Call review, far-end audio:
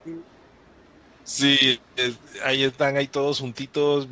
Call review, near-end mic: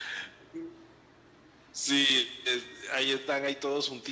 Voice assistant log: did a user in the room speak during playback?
No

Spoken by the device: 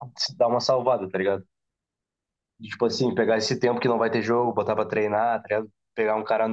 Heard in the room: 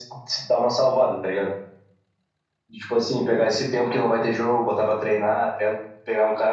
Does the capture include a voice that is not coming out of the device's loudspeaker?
No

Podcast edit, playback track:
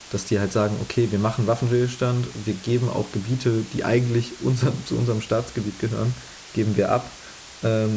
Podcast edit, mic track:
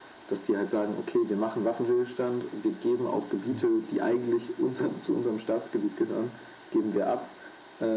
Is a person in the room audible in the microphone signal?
Yes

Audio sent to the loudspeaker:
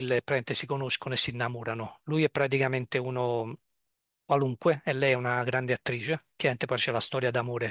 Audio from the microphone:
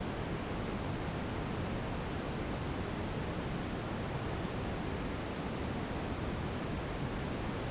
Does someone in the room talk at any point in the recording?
No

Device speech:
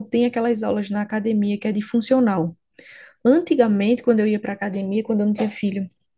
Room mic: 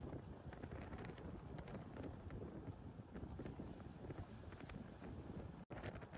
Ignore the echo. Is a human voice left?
No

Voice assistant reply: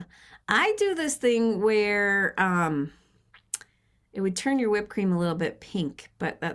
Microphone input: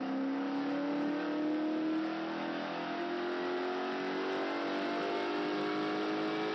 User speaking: No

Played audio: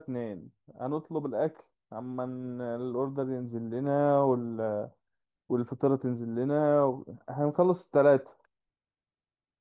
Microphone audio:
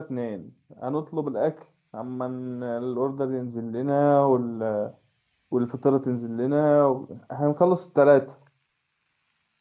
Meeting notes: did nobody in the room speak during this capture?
Yes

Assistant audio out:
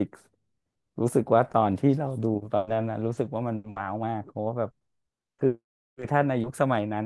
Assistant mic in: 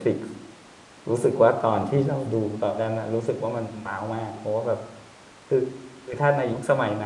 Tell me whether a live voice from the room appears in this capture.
No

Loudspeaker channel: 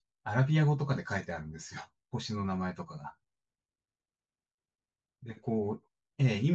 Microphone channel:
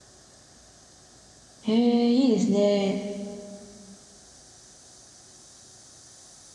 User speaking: Yes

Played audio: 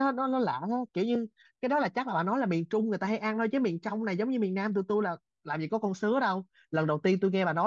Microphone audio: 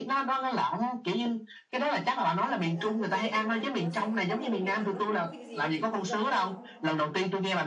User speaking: Yes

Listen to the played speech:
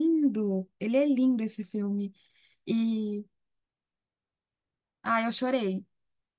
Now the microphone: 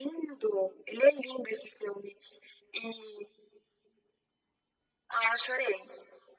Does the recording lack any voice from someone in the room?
Yes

